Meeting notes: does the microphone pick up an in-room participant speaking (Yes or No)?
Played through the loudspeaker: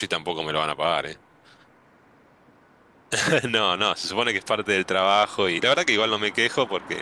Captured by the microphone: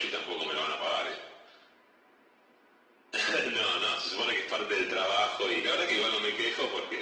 No